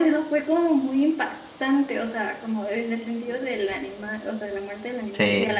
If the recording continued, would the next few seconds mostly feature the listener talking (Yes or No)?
No